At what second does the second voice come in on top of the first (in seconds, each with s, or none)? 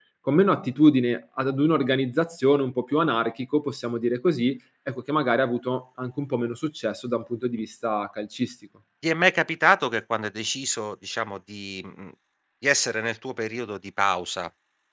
none